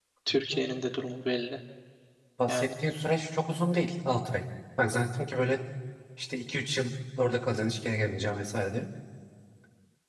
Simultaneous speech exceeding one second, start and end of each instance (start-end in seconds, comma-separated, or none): none